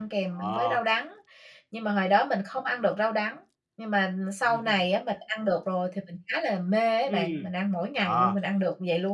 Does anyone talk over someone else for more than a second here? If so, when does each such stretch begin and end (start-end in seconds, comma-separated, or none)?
none